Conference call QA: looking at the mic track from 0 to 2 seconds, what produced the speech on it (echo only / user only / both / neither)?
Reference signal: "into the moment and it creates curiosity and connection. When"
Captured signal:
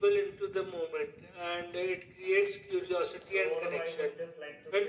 echo only